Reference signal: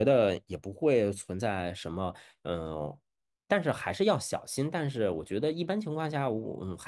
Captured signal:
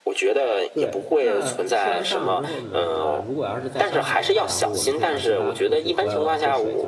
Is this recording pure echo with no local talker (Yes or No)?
No